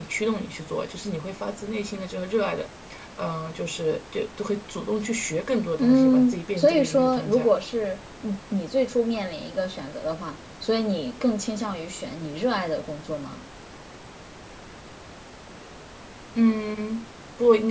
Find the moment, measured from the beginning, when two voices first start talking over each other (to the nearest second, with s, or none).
6 s